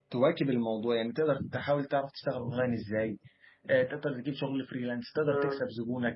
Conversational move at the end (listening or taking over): listening